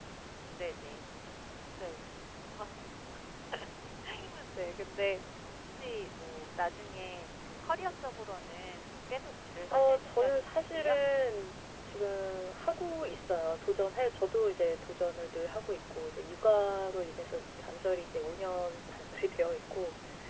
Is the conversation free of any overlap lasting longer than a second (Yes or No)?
No